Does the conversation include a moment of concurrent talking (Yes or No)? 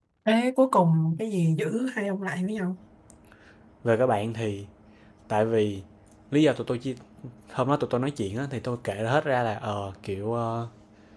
No